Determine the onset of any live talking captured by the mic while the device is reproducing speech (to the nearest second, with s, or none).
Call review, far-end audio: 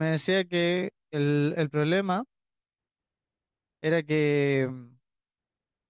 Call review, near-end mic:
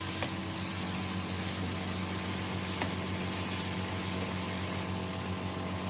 none